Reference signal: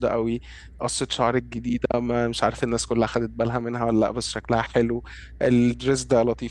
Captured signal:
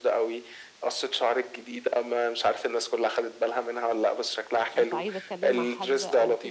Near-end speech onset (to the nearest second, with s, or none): 5 s